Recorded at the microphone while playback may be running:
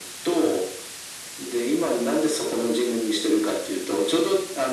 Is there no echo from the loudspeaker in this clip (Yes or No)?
No